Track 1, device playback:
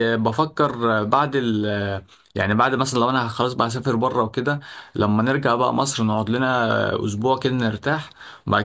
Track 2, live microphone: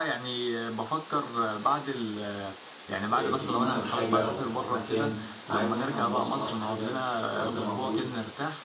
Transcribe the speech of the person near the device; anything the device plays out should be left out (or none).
ت- آه، تجيب مثلا حاجة او تروح مكان فعايز مثلا مواصلة او حاجة الكلام ده موجود